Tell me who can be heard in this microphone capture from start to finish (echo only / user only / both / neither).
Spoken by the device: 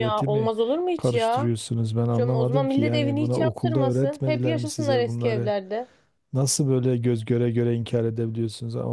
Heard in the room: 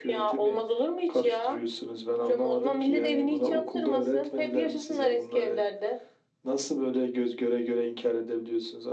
echo only